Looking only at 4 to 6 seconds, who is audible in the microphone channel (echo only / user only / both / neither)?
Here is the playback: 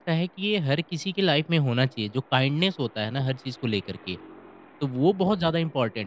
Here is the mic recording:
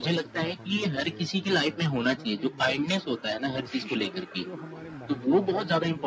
both